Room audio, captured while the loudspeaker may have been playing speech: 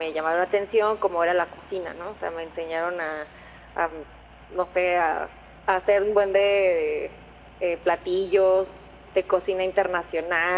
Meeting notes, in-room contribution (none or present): none